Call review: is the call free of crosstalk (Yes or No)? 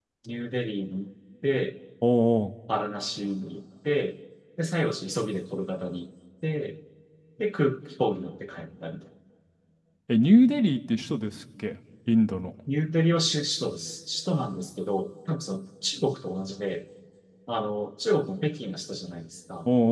Yes